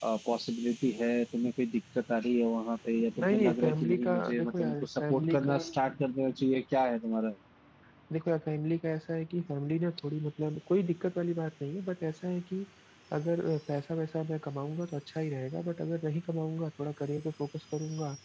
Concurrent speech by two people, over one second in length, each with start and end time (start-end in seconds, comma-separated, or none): 3.2-5.6